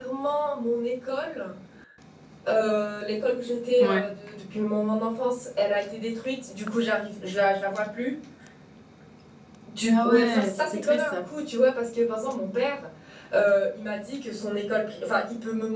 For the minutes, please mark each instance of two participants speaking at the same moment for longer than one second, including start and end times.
9.9-11.2

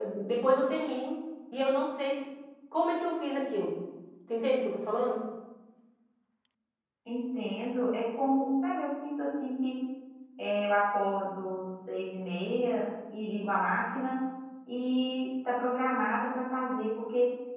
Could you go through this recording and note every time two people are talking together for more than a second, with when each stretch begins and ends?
none

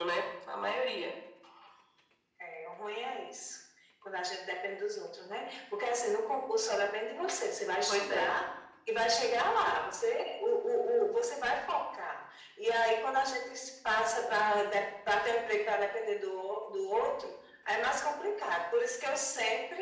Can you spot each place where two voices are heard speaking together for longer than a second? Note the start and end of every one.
none

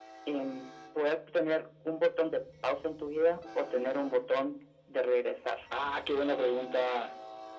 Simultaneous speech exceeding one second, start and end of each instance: none

